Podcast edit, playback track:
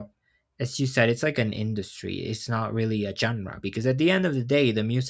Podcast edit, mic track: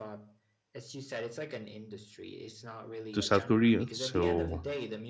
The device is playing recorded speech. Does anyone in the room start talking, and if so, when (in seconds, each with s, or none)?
3.1 s